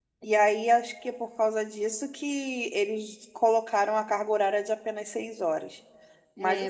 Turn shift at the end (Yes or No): Yes